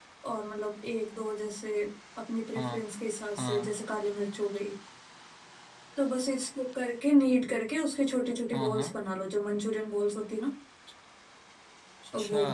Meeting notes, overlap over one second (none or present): none